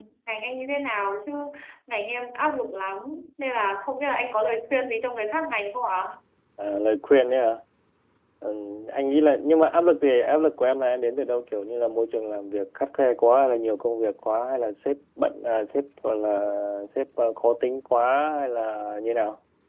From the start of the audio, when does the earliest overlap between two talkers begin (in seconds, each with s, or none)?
none